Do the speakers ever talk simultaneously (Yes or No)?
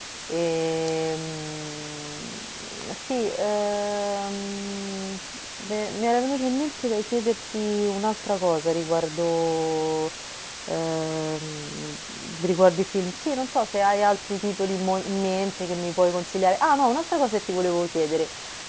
No